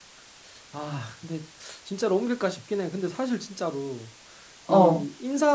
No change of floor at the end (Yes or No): Yes